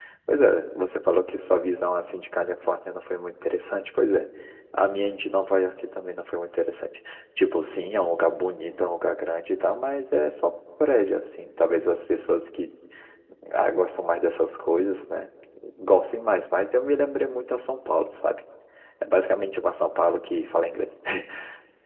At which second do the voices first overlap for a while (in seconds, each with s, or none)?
none